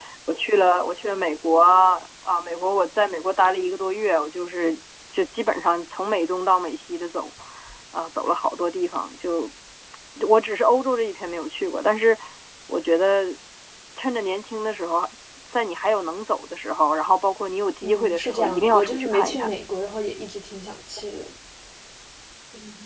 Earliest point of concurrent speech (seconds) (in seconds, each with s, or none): 17.8 s